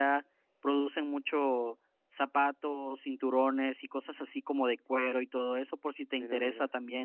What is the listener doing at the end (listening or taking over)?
listening